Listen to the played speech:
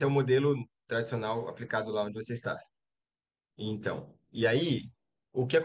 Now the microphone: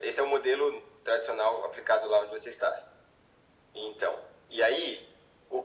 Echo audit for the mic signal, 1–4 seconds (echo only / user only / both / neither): echo only